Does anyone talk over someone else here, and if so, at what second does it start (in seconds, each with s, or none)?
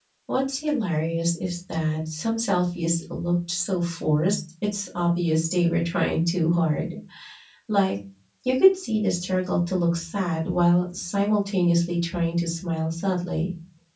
none